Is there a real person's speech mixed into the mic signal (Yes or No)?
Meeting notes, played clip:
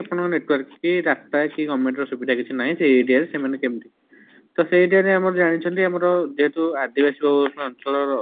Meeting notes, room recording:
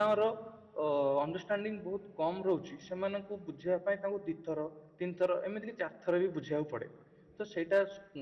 Yes